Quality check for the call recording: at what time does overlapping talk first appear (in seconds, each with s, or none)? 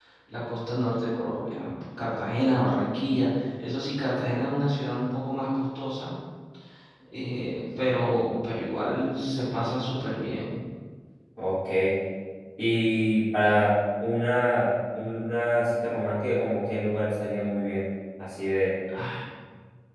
none